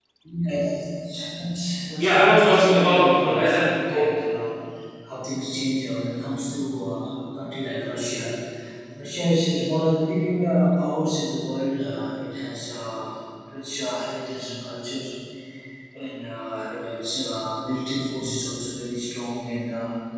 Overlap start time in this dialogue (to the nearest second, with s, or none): 2 s